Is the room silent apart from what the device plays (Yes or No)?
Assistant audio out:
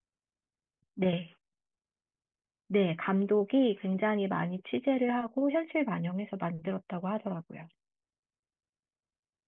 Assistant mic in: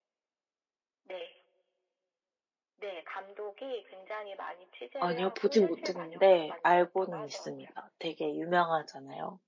No